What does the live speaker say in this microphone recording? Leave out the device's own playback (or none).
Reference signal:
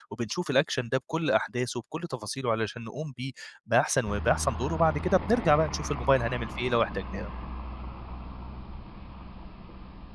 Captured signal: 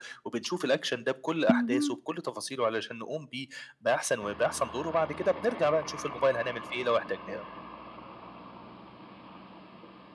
اهم،